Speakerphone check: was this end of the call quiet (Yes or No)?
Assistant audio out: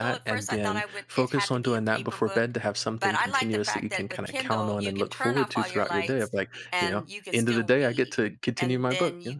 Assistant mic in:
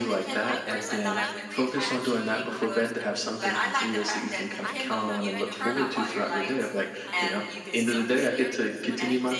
No